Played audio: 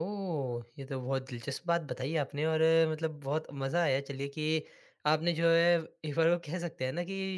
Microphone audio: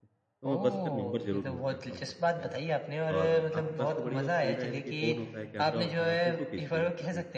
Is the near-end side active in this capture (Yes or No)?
Yes